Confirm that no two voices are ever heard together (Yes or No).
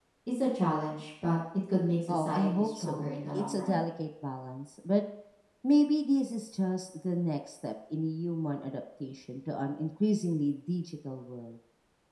No